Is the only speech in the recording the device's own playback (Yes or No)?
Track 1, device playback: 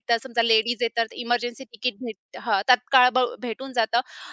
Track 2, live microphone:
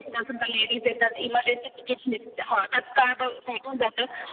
Yes